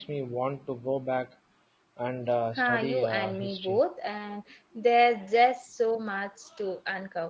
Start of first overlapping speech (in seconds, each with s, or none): 2.6 s